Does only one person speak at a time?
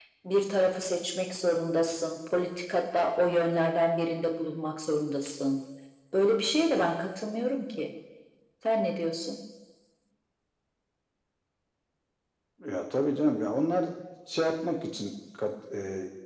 Yes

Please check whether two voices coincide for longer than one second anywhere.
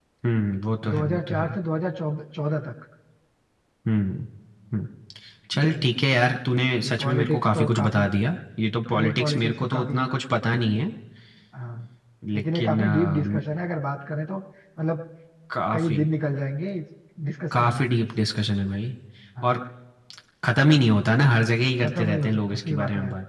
Yes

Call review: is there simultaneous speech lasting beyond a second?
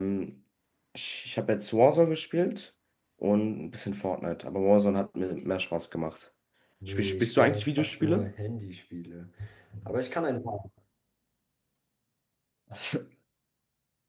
Yes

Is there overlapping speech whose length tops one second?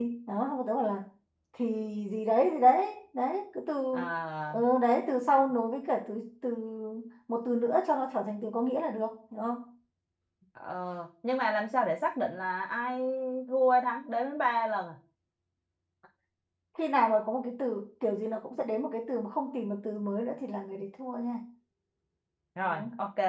No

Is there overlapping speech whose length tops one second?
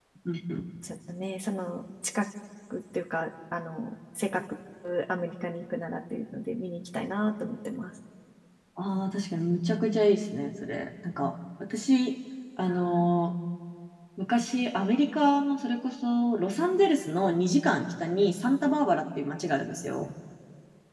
No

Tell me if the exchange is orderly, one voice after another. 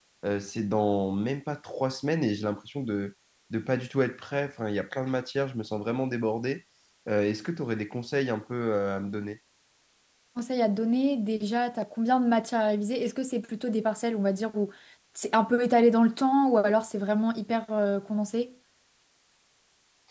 Yes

